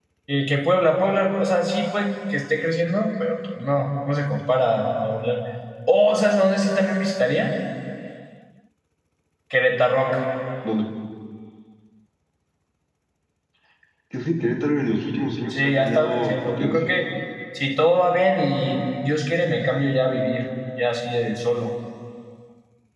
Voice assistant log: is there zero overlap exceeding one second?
No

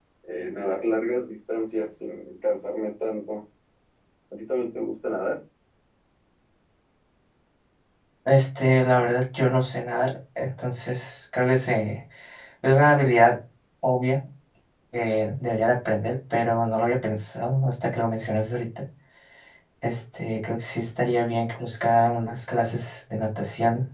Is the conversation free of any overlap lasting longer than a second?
Yes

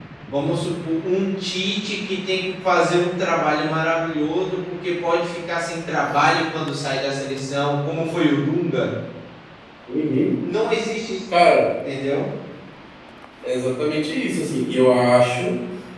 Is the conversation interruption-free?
Yes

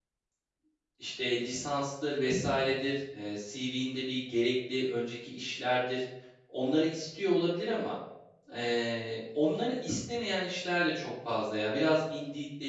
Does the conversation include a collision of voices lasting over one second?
No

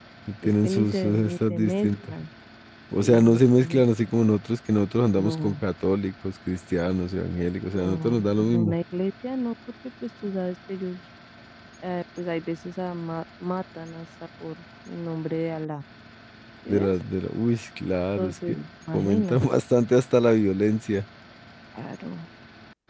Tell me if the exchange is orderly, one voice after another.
No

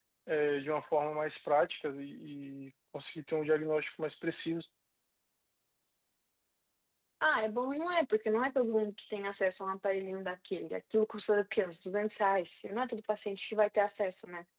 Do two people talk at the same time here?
No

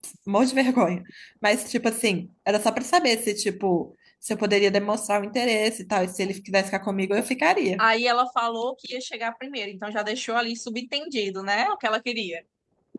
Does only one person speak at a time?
Yes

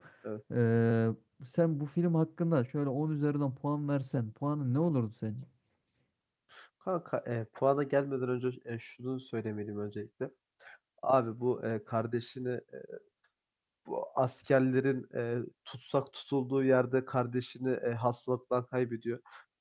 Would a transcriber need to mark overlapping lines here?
No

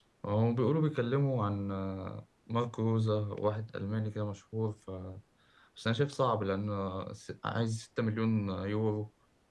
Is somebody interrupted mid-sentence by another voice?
No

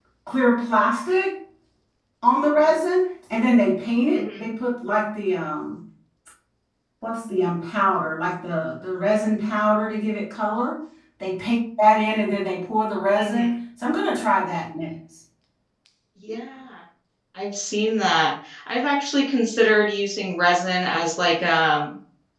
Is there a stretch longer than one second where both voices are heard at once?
No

